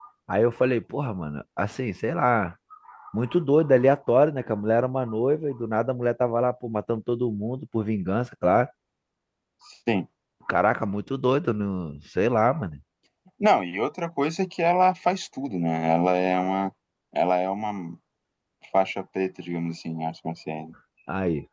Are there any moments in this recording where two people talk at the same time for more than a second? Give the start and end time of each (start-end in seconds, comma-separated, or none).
none